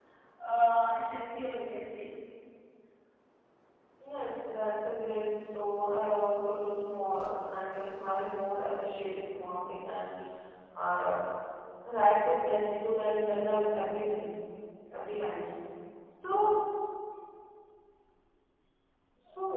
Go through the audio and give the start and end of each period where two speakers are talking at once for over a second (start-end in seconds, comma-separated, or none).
none